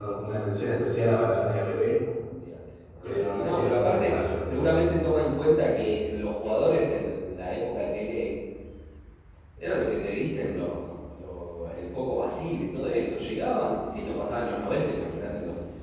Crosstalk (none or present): present